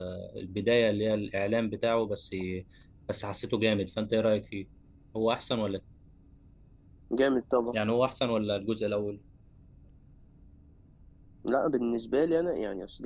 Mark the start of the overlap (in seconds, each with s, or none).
none